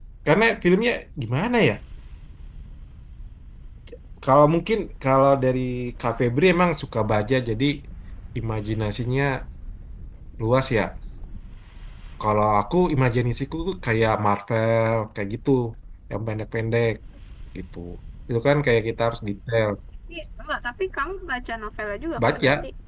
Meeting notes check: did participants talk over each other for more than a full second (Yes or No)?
No